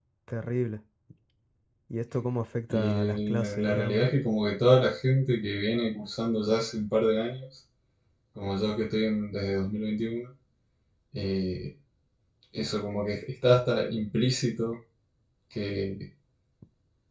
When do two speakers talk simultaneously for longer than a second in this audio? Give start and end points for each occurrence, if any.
2.7-4.0

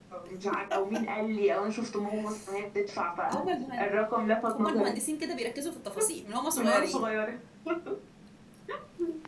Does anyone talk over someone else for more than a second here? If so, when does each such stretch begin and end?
none

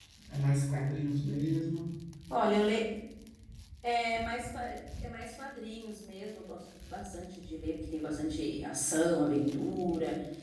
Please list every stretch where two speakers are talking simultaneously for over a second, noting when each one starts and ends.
none

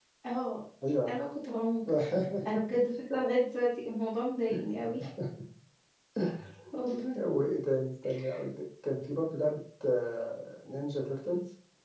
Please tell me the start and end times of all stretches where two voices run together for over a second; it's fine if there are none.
none

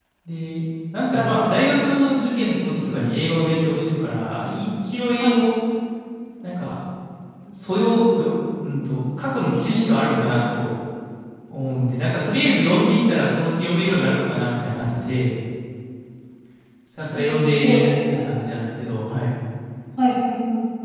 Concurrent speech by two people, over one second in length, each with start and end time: 17.1-18.4

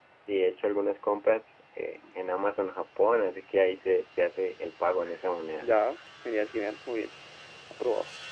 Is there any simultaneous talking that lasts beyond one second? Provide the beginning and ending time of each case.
none

